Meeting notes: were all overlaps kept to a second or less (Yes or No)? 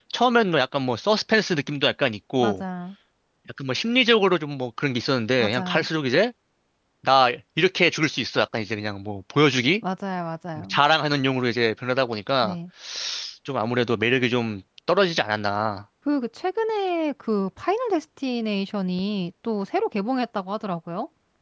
Yes